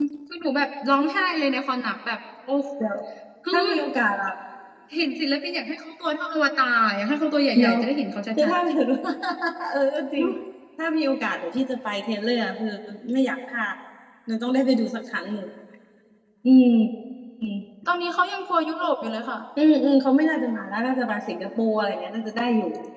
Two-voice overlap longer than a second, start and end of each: none

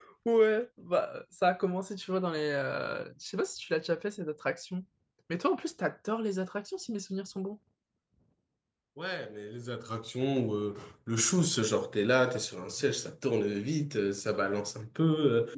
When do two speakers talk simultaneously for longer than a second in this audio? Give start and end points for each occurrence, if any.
none

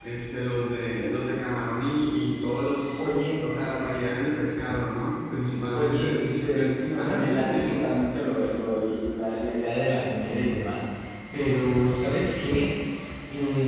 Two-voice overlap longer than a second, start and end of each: 5.7-7.9

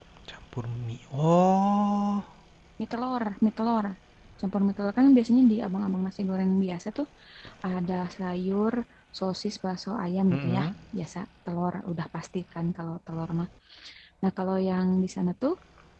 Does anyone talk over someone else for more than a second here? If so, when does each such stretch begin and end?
none

